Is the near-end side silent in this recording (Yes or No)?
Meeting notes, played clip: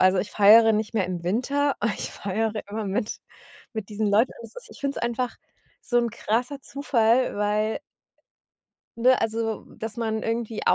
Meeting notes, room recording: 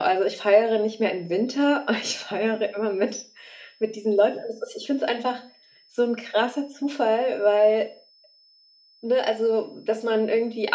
Yes